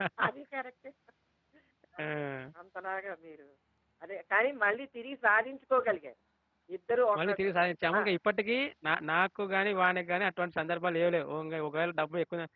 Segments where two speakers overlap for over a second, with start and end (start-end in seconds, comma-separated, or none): none